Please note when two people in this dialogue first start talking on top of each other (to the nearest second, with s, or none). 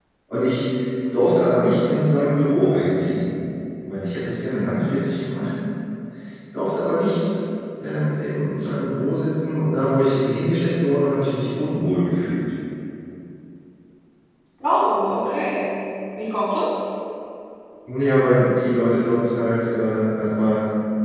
none